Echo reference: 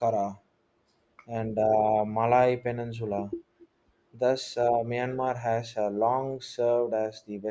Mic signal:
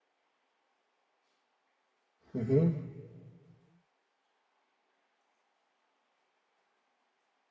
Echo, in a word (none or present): none